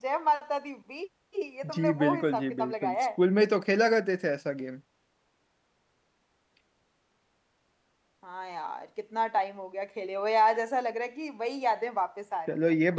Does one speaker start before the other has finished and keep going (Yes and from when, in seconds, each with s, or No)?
Yes, from 1.7 s